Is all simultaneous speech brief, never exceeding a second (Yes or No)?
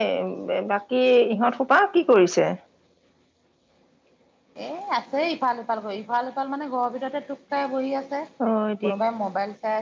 Yes